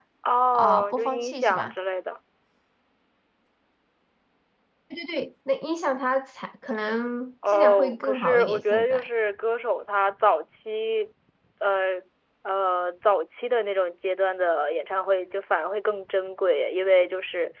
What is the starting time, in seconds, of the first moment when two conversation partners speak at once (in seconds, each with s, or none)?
0.5 s